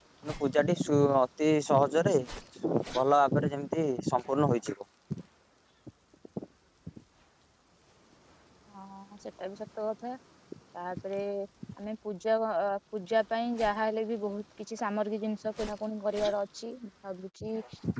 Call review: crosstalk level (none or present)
none